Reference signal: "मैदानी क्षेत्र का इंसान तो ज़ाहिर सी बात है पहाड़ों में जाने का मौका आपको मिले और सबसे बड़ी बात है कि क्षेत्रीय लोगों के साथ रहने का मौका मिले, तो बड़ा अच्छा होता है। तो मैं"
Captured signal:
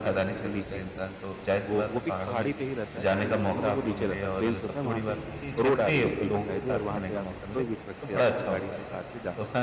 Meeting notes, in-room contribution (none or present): present